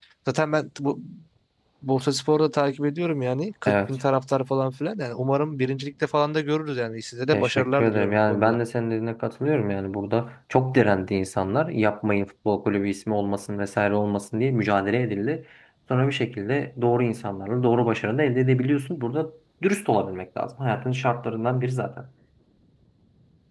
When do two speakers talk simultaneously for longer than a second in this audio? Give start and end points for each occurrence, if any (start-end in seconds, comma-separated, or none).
7.3-8.6